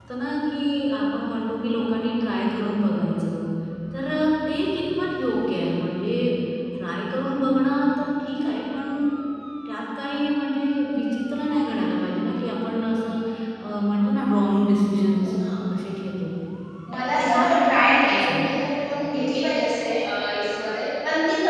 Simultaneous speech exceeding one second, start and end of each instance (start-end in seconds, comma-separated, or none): 17.1-18.5